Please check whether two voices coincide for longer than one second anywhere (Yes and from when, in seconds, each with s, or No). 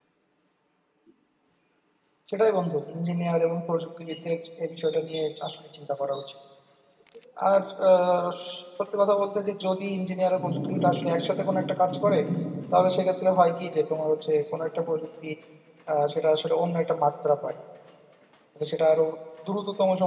No